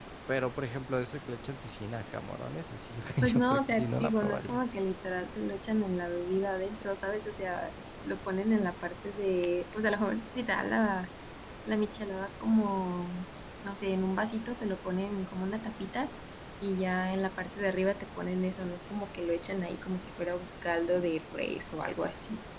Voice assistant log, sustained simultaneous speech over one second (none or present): present